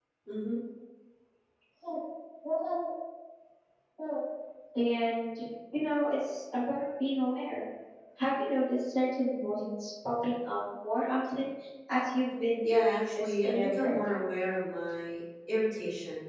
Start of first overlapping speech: 12.6 s

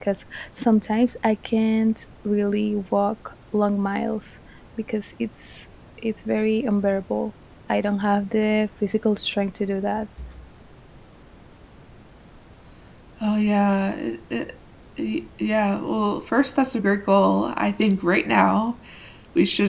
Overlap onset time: none

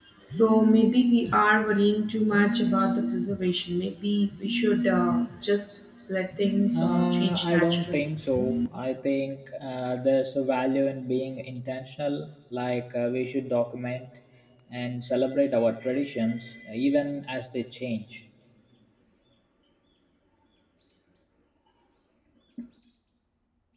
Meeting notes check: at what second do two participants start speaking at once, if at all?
6.7 s

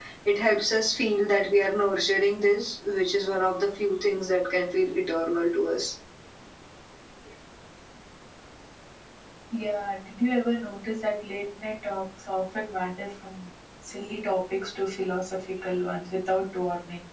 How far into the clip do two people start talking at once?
none

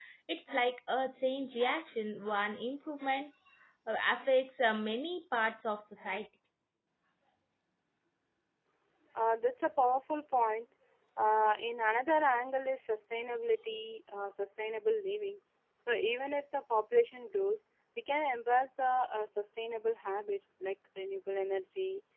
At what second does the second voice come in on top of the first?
none

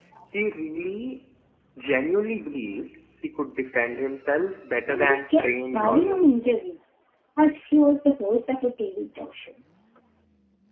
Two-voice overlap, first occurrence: 4.9 s

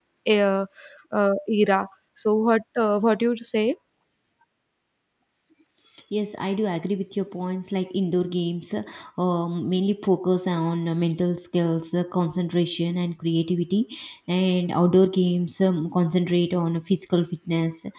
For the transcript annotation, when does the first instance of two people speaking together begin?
none

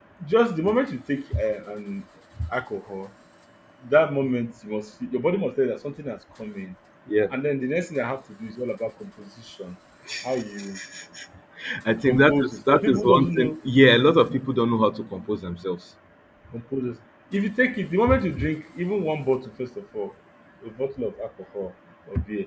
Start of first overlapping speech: 12.1 s

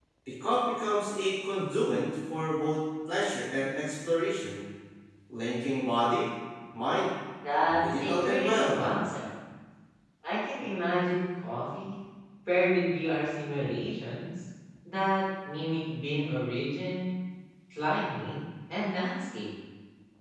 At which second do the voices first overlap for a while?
7.7 s

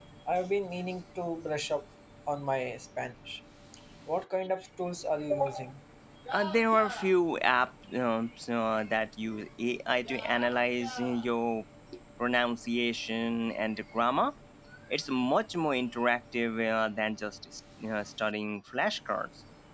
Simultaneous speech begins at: none

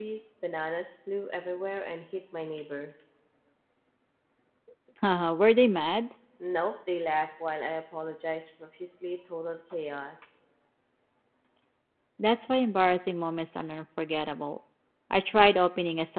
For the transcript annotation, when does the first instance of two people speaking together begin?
none

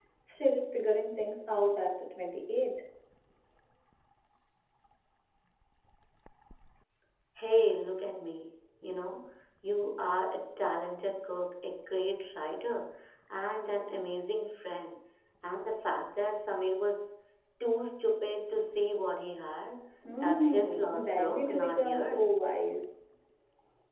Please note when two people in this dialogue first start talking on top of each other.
20.2 s

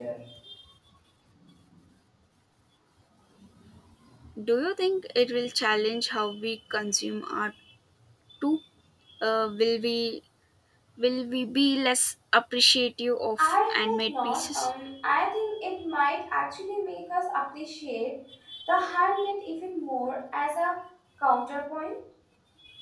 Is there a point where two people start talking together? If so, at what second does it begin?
13.4 s

